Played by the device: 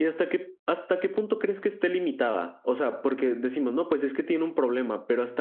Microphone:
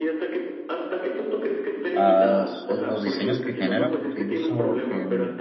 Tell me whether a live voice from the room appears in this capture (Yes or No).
Yes